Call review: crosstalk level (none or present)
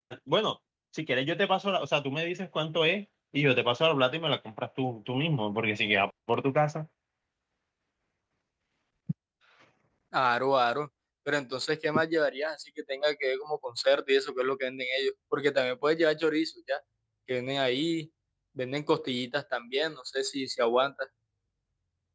none